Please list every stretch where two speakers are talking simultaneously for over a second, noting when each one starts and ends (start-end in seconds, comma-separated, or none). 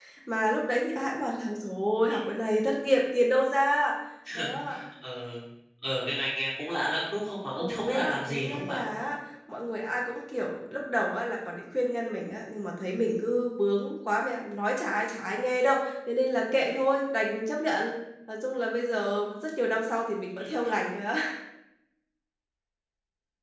7.5-8.8